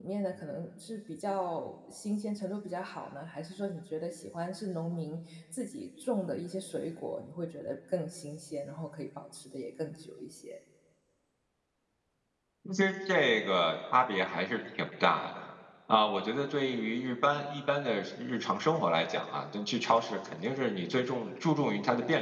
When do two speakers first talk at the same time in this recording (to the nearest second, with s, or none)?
none